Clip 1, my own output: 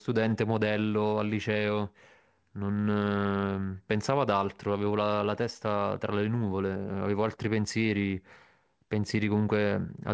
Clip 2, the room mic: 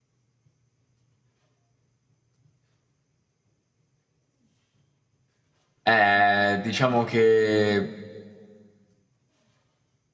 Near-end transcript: Eh, diciamo che

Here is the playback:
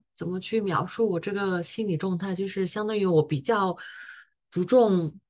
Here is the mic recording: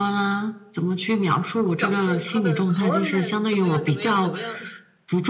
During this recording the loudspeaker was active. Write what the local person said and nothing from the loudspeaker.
掌控他的猴儿们怎么样、怎么样、怎么样

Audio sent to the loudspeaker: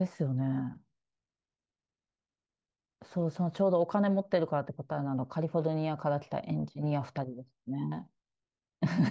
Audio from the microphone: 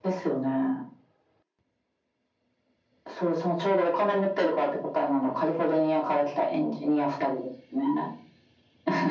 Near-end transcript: none

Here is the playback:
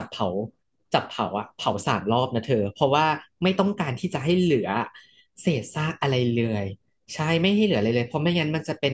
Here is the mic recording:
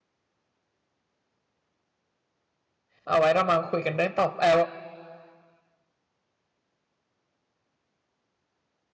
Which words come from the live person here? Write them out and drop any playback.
เอาไว้เรามาคุยกันเรื่องต่อเออ

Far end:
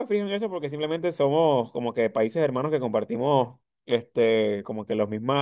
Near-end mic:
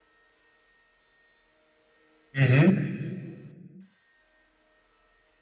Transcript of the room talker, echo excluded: Ujú.

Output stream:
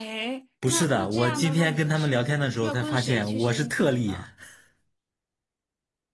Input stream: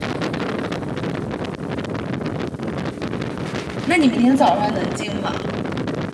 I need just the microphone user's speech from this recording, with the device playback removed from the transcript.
那你明天早上能进吗？

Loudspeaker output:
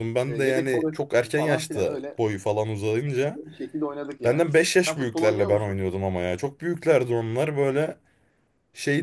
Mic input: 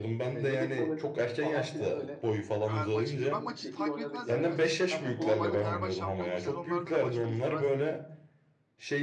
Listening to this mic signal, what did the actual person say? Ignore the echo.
her maçı. Ya ben maçı takip etmezdim ya hiç. Yani normalde Fenerbahçe şampiyon olduğu sezonlarda da maçları izlemezdim yani.

